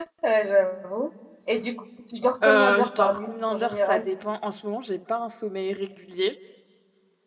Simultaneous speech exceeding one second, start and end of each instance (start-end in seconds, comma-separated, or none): 2.4-4.1